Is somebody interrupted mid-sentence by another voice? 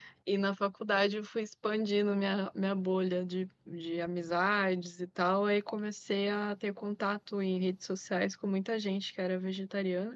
No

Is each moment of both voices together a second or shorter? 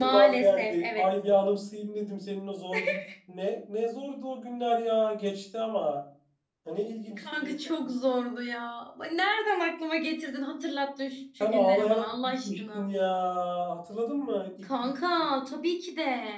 No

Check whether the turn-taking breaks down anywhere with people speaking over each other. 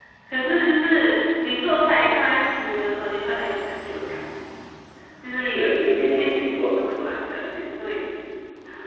Yes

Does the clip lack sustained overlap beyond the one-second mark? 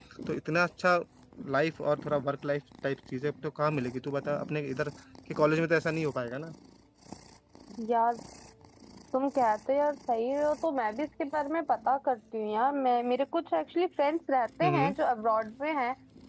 Yes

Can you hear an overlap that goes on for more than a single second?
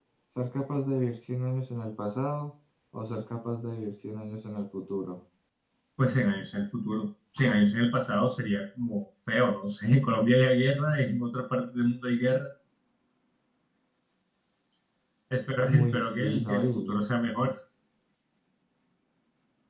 Yes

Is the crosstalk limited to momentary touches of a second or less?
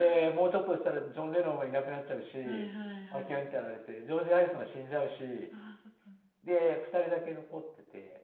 Yes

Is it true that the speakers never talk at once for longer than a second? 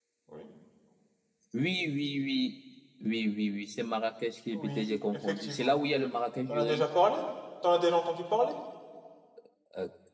No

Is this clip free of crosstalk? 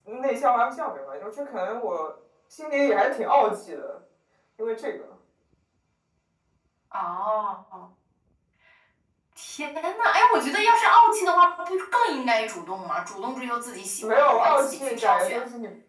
No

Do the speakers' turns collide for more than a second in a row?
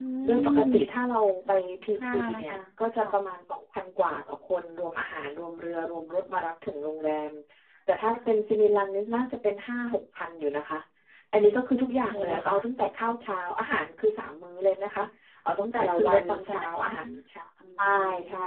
Yes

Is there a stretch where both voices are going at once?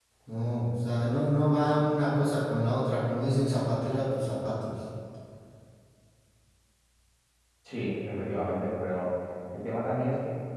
No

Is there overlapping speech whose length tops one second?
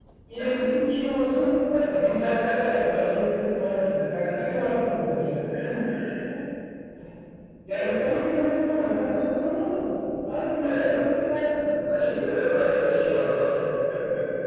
Yes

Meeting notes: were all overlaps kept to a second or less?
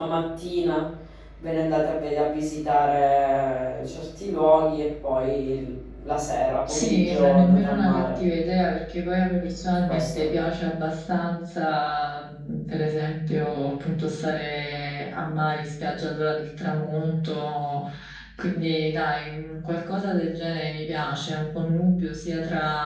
No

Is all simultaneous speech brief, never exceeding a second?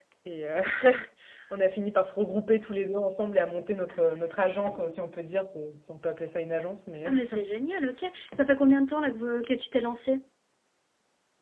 Yes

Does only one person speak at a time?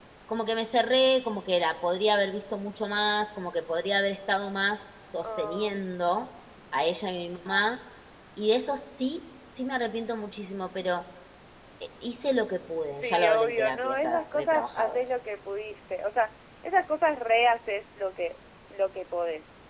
No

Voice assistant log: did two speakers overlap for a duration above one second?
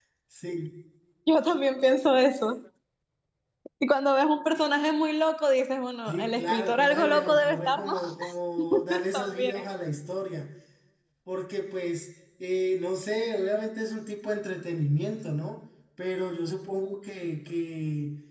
Yes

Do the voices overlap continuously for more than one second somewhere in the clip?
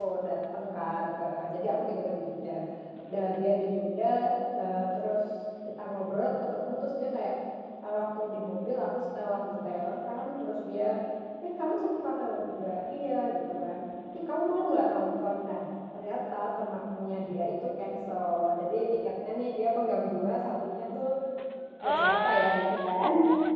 Yes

